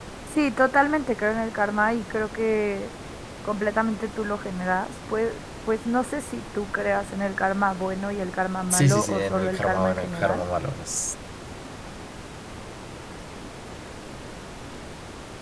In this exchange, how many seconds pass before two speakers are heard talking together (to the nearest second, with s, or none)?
9 s